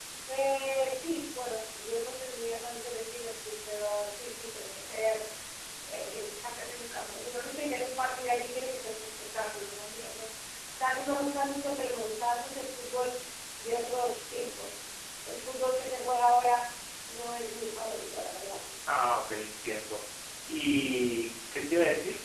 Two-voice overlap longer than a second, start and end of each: none

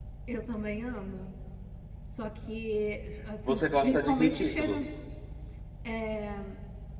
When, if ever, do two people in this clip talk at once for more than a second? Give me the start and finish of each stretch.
3.5-4.9

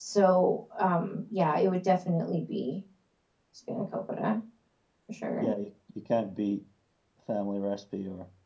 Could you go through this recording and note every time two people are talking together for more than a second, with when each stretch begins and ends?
none

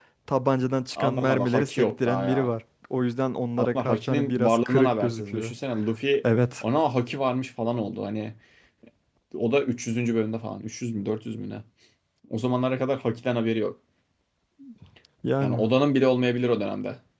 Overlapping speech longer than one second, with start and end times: 1.1-2.5, 3.6-5.5

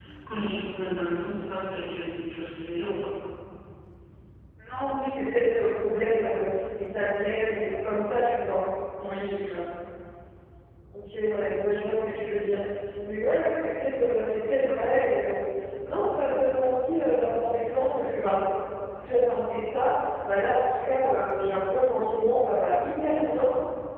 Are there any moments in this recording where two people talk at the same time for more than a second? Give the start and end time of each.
none

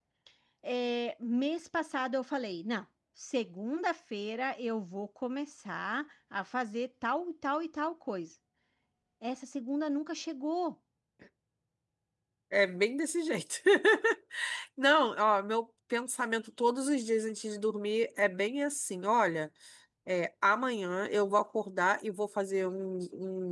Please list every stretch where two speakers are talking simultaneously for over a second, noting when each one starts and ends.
none

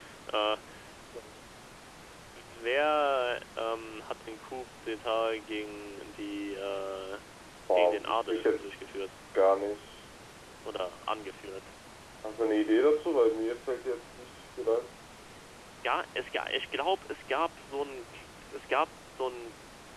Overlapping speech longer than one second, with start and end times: 7.8-9.0

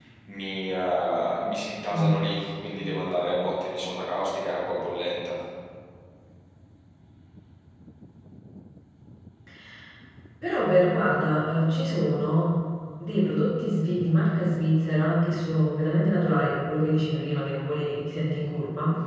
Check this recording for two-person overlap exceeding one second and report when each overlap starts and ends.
none

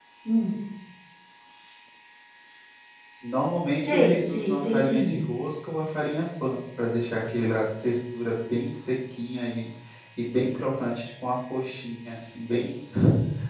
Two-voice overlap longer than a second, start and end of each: 3.8-5.2

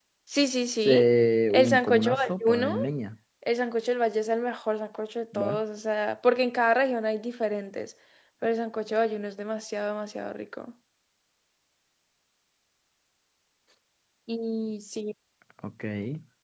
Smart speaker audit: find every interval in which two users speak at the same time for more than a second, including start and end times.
1.5-2.8

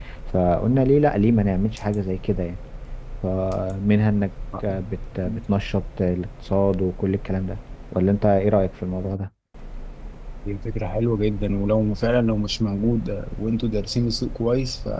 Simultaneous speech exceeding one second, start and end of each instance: none

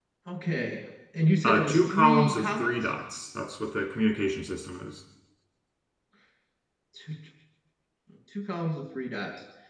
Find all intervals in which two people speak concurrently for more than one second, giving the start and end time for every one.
1.4-2.9

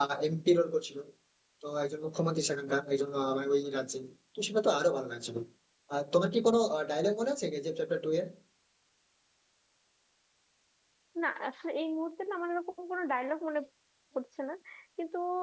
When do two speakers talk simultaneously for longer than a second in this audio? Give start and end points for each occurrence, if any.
none

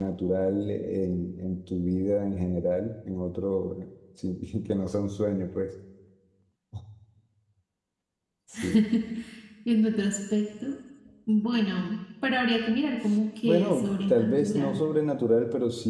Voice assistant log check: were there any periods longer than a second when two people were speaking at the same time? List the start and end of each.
13.4-14.8

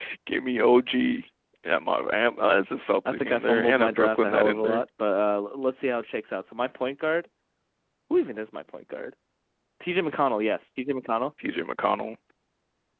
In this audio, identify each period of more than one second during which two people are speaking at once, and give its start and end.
3.1-4.8

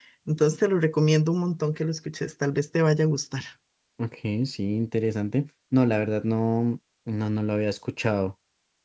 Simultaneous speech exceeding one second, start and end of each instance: none

